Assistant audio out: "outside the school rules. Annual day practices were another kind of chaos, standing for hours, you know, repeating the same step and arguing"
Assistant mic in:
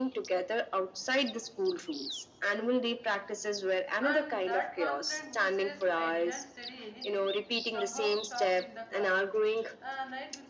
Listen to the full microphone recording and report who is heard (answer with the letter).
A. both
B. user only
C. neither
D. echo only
A